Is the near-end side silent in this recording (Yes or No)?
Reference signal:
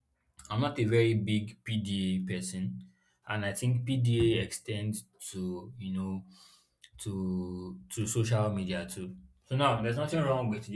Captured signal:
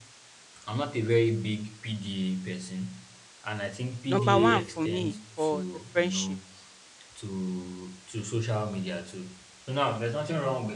No